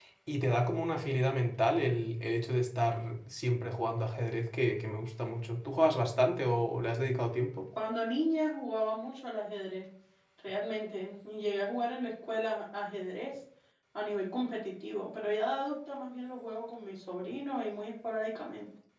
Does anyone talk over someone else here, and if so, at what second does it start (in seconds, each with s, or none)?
none